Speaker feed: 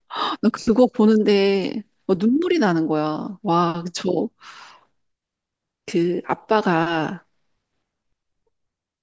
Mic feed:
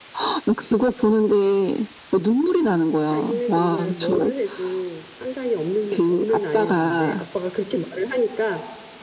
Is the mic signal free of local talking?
No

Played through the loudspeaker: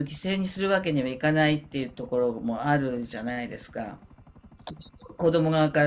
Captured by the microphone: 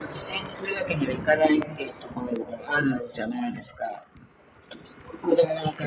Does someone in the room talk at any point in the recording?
No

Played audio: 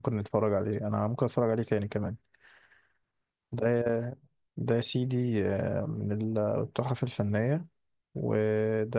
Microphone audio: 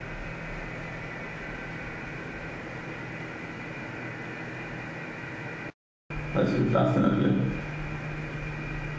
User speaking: Yes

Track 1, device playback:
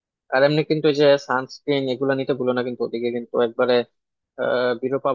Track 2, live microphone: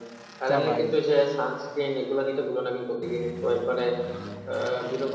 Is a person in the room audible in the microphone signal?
Yes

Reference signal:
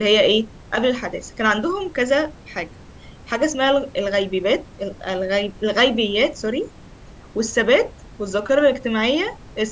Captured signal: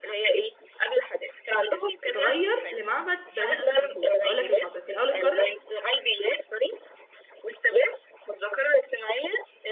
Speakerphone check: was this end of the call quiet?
No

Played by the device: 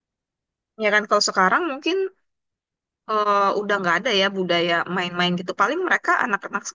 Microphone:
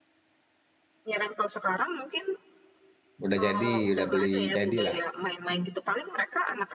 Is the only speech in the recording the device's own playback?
No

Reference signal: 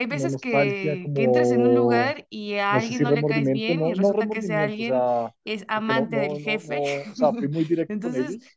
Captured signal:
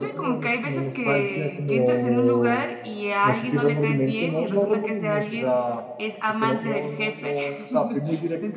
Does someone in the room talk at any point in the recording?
No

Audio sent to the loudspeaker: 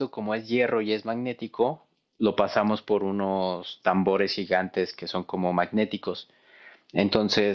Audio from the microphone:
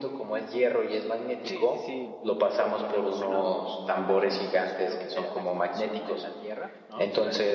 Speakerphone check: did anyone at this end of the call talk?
Yes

